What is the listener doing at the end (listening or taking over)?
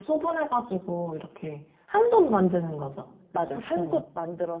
taking over